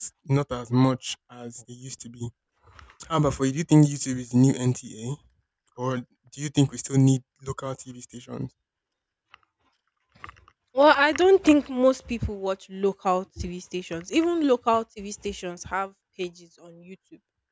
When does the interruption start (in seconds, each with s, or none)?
none